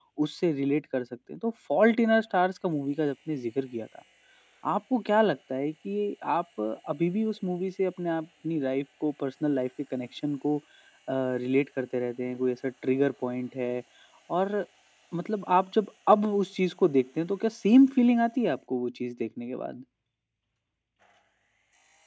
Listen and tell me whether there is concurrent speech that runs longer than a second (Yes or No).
No